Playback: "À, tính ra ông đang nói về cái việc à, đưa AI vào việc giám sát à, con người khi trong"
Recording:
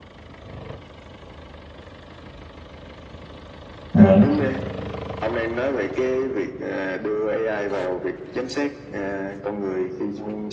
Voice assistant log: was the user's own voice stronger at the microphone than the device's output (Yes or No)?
Yes